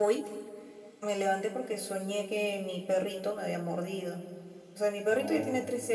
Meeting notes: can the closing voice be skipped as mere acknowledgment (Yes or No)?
Yes